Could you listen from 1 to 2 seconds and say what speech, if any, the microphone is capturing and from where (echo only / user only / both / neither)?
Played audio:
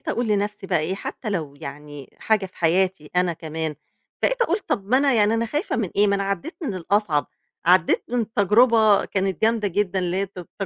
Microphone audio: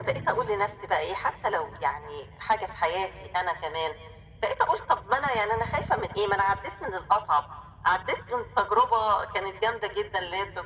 echo only